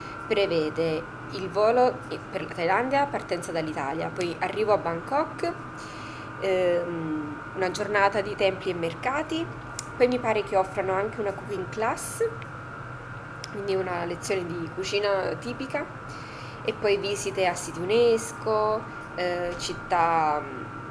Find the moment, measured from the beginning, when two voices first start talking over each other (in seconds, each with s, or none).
none